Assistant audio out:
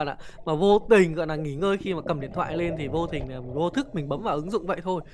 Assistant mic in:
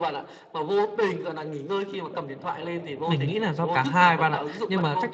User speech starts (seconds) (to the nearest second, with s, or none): 3 s